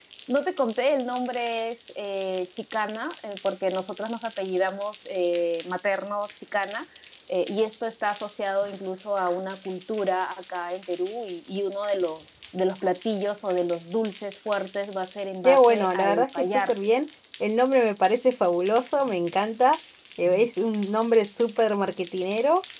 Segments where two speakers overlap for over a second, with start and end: 15.4-16.7

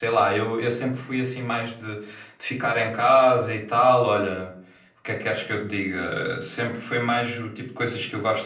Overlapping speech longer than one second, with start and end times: none

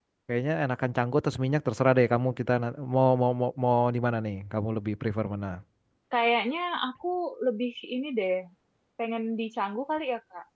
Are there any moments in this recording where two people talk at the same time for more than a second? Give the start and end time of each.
none

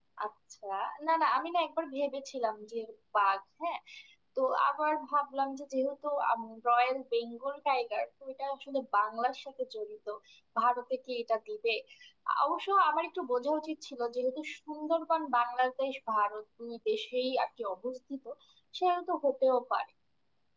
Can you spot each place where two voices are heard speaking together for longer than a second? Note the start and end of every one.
none

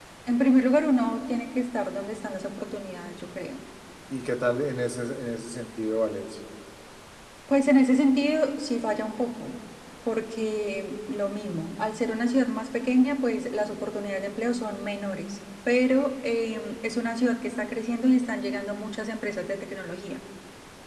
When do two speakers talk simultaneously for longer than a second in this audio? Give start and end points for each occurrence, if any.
none

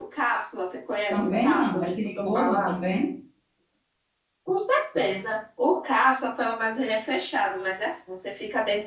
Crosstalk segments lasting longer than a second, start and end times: 1.1-2.8

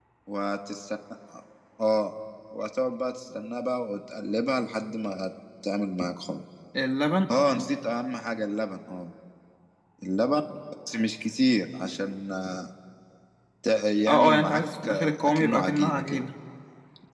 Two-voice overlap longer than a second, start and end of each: 14.1-16.2

